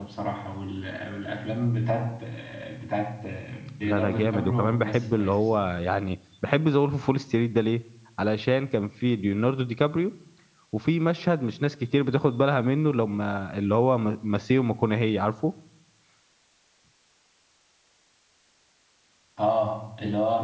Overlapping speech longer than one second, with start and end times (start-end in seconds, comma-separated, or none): 3.8-5.7